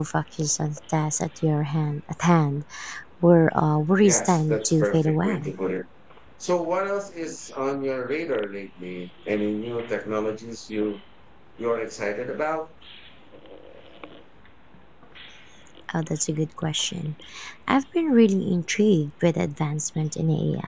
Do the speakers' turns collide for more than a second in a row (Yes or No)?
Yes